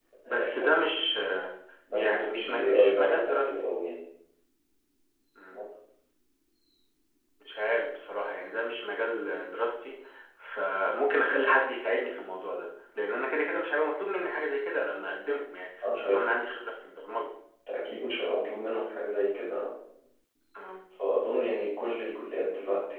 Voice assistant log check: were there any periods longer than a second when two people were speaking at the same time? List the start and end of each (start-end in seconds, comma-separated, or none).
1.9-3.5